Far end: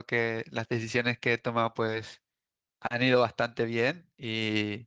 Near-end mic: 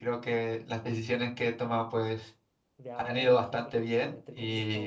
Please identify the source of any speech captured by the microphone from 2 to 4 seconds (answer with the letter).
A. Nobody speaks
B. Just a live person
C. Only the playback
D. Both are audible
D